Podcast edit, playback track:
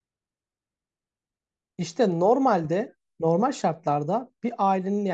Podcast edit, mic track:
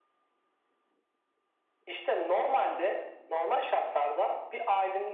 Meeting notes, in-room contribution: none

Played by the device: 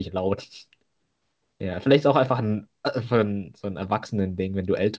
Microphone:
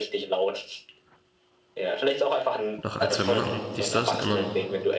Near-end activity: present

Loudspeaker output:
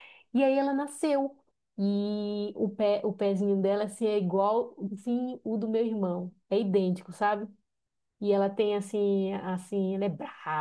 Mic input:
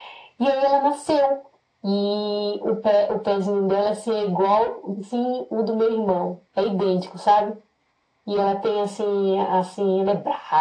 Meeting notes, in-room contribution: none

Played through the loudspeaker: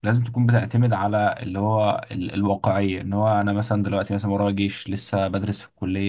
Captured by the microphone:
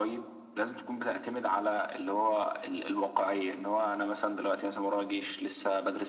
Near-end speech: none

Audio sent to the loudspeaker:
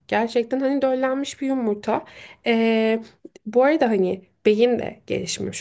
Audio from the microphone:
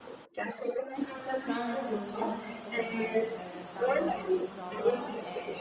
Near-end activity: present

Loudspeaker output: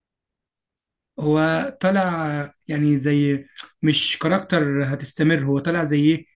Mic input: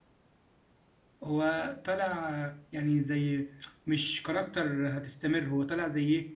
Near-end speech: none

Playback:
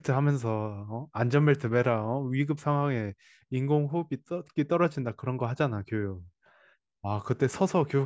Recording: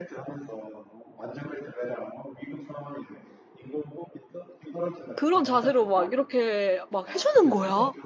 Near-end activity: present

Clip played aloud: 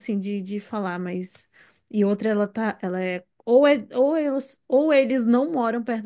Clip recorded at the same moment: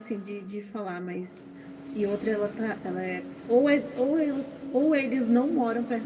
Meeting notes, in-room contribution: none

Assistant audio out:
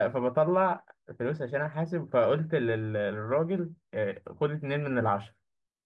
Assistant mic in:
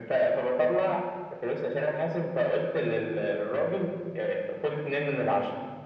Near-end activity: none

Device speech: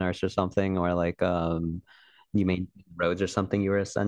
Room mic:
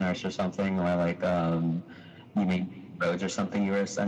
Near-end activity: none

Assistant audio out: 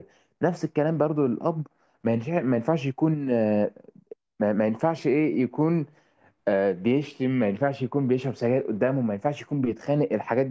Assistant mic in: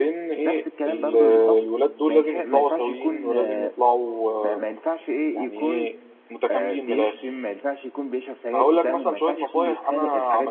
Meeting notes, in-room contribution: present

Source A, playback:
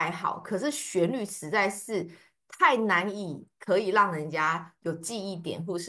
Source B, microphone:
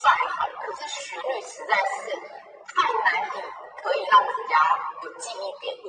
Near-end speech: none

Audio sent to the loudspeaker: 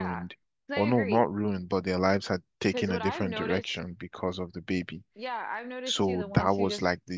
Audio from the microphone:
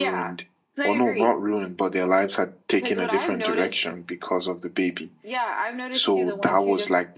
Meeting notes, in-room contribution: none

